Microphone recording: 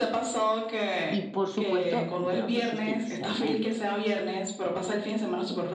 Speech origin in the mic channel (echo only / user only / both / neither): both